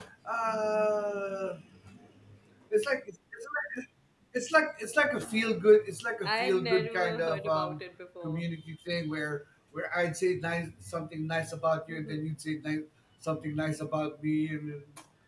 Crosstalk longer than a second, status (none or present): present